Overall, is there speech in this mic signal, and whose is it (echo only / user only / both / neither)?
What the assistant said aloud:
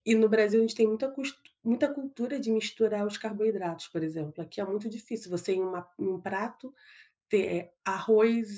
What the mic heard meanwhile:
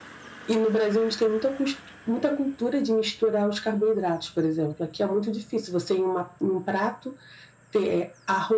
echo only